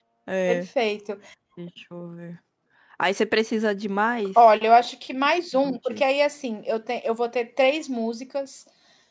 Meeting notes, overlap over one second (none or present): none